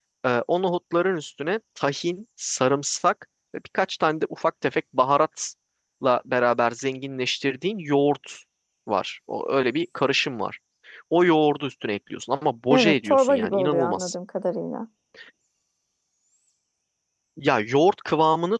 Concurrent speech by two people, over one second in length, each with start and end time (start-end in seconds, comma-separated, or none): 12.7-14.1